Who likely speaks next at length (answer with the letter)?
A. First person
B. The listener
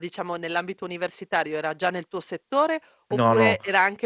A